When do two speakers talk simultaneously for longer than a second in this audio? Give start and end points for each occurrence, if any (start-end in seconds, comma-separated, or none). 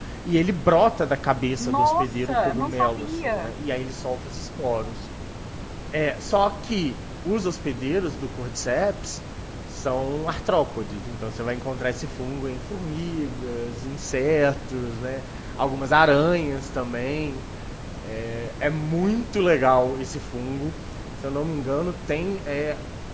1.6-3.5